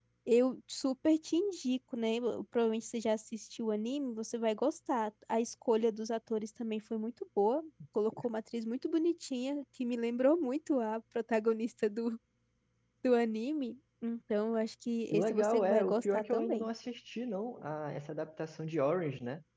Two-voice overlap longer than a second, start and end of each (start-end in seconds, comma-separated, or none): 15.1-16.7